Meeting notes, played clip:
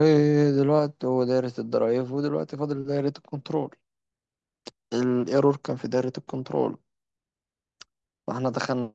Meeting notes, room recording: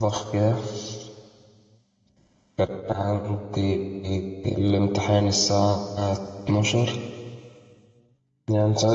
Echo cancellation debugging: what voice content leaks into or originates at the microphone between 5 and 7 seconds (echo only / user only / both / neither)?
user only